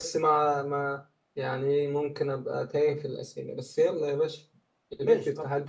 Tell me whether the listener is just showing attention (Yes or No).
No